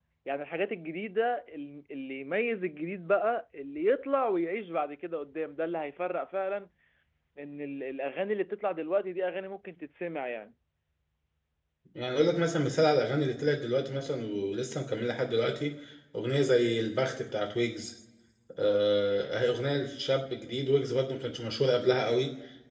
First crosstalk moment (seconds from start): none

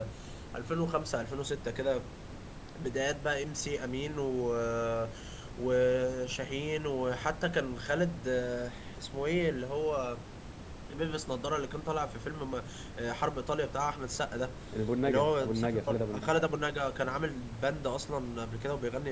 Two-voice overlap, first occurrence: 15.0 s

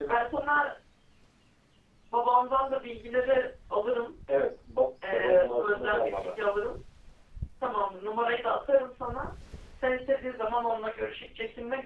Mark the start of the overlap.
5.1 s

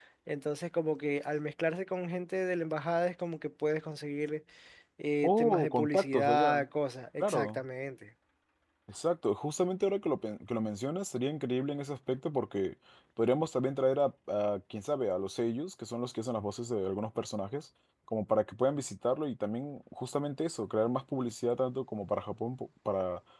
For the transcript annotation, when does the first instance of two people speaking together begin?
5.2 s

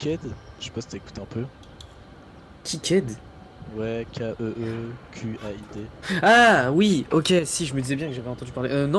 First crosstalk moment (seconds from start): none

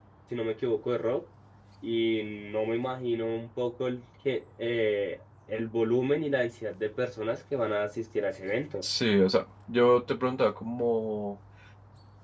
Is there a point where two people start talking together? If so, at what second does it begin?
none

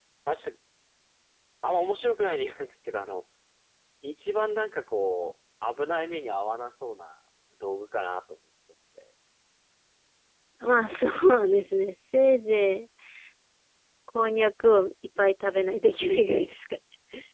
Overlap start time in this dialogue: none

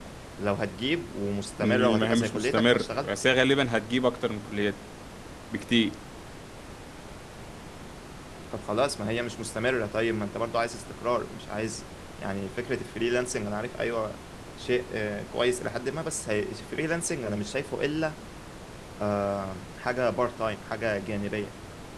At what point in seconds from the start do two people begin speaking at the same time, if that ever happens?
1.6 s

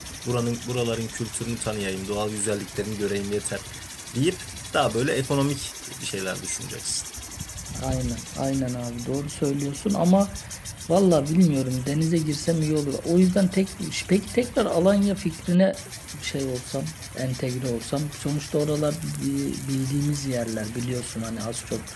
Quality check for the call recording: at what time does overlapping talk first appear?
none

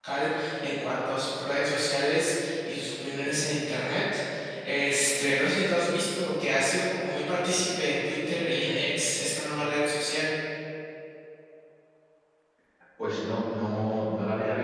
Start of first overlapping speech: none

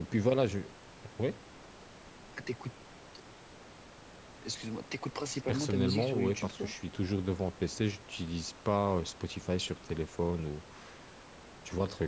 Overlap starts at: 5.5 s

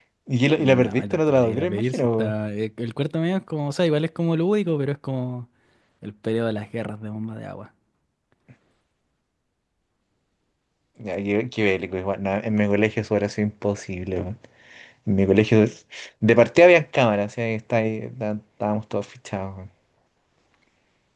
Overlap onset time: 0.6 s

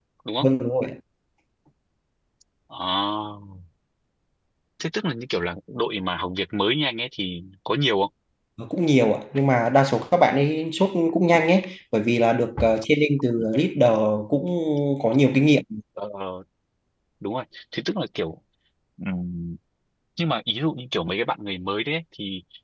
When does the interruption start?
none

